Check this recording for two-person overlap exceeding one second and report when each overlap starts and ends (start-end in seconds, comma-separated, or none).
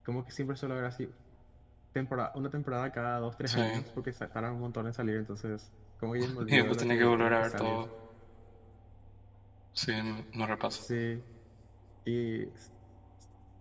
6.5-7.8